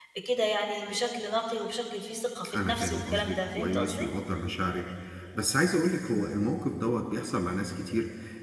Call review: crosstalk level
present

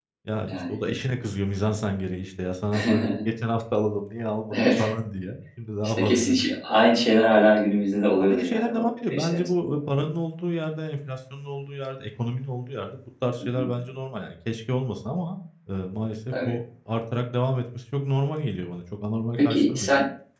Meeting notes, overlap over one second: present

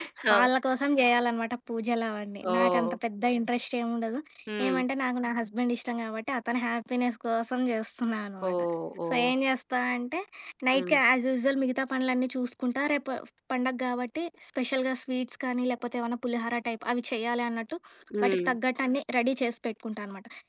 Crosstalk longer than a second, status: none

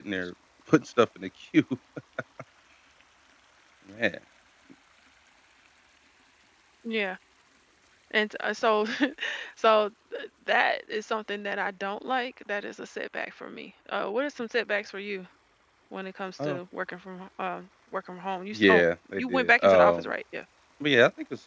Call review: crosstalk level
present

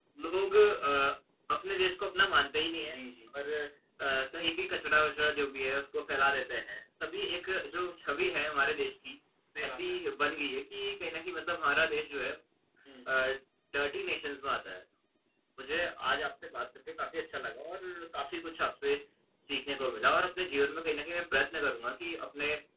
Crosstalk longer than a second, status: none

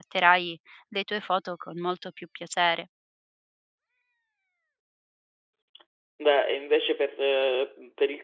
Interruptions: none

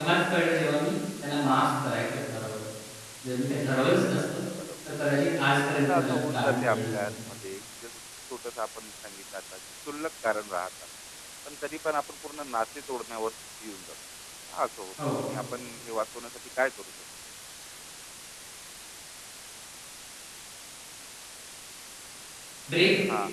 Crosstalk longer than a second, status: present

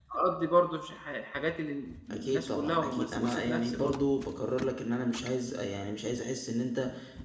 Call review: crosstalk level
present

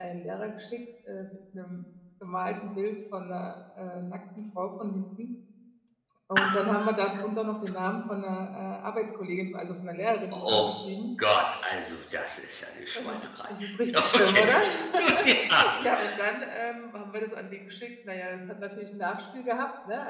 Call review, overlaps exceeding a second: present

